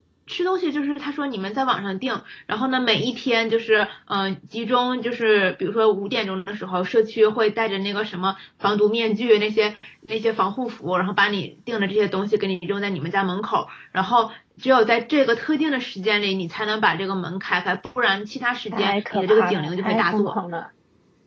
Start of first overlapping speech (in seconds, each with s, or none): 18.7 s